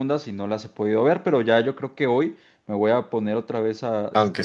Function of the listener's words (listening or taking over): taking over